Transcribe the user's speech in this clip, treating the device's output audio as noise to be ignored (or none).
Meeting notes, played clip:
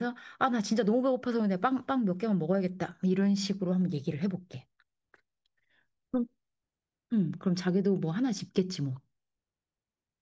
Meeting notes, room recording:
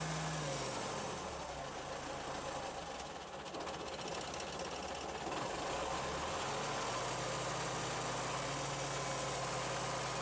none